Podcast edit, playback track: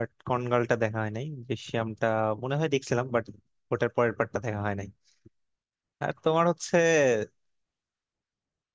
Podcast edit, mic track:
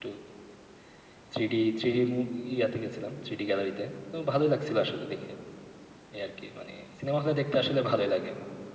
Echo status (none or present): none